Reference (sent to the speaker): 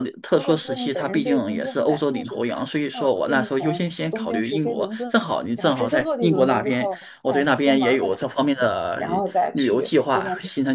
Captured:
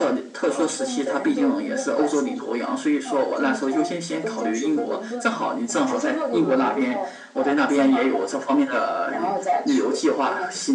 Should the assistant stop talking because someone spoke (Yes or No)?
No